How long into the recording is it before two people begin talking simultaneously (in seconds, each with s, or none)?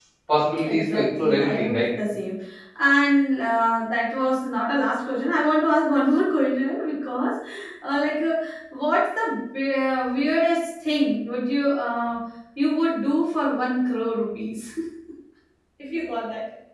0.6 s